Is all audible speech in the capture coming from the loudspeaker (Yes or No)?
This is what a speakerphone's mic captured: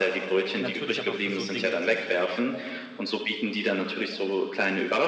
No